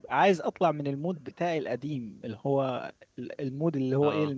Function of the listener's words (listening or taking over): listening